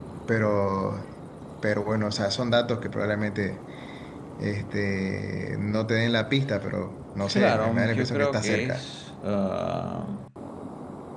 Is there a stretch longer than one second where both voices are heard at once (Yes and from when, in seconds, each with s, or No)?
Yes, from 7.2 s